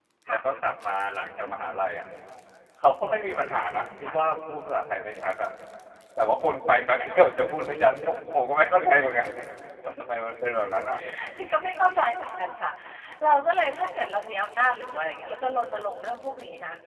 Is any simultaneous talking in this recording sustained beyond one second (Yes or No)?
No